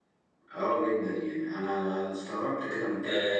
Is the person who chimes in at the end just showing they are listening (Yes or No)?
No